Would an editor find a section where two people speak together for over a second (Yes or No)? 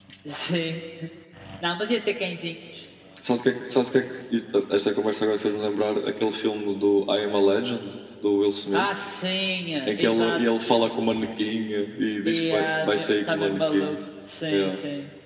Yes